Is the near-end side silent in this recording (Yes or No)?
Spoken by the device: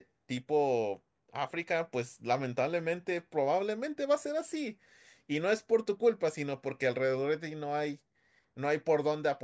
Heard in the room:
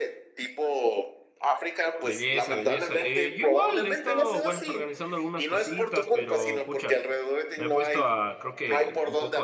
No